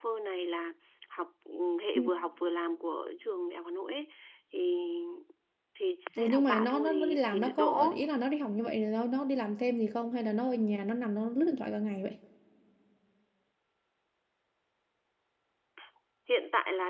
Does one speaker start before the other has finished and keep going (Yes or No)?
Yes